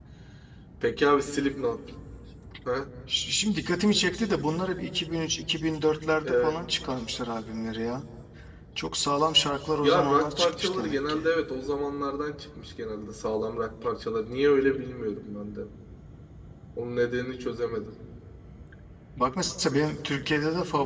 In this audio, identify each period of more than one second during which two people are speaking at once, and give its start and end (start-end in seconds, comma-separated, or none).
9.8-11.2